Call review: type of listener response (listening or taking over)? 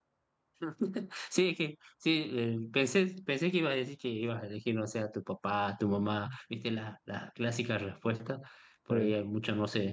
listening